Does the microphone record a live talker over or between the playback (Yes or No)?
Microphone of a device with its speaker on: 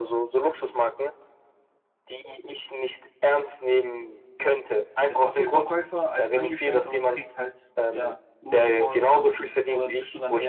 Yes